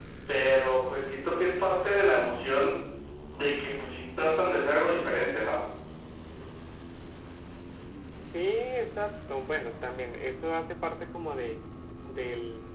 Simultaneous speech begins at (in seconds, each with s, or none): none